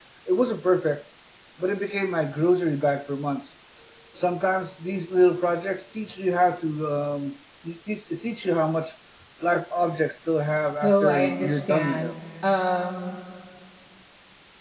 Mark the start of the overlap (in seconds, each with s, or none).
10.8 s